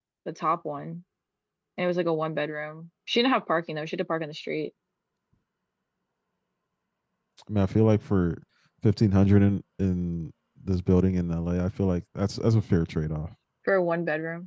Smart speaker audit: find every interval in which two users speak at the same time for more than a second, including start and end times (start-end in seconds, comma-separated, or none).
none